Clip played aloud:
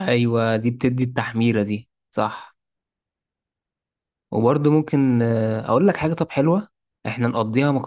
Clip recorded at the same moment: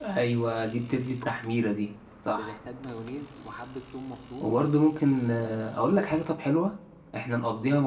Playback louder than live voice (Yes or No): Yes